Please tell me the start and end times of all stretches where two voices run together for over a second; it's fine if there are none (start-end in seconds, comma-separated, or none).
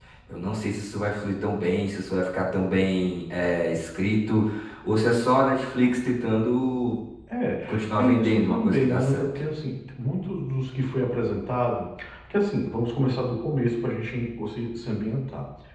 8.0-9.2